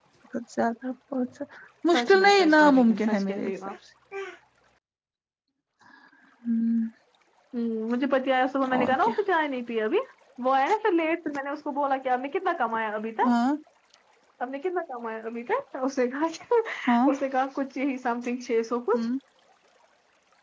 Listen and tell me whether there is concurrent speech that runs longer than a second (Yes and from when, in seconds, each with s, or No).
Yes, from 1.9 s